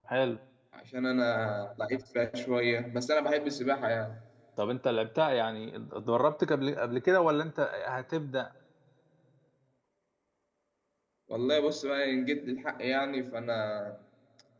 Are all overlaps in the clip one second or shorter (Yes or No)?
Yes